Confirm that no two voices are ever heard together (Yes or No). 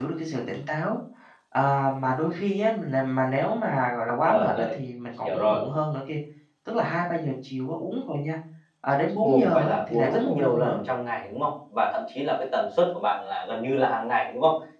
No